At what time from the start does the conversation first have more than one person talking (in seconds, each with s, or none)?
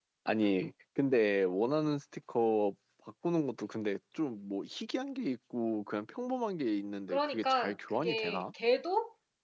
7.1 s